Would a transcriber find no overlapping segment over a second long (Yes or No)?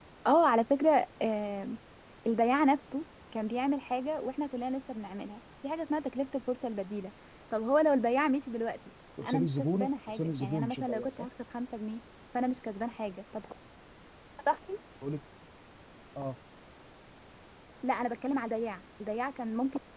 No